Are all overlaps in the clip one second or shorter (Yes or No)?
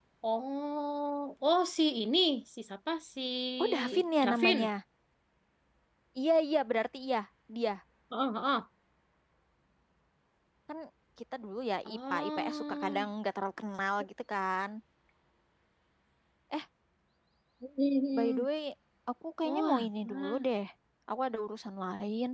No